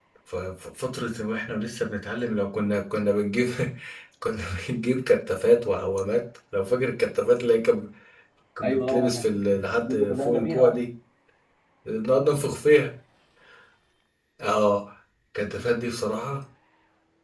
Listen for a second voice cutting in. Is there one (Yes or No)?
Yes